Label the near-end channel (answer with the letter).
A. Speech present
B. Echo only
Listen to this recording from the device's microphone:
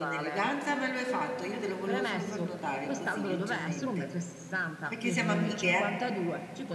A